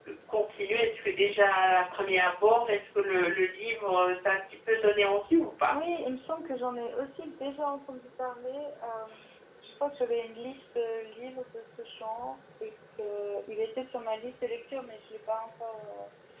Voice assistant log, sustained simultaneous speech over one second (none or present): none